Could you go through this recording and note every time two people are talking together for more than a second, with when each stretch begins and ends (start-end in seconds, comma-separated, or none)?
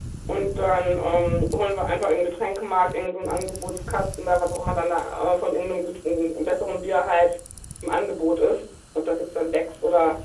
none